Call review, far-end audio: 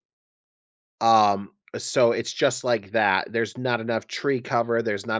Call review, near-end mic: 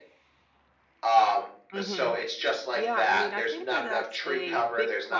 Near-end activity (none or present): present